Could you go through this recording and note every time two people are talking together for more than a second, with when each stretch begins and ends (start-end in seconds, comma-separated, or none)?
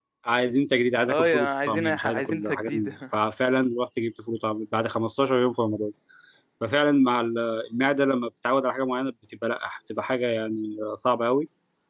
1.1-2.9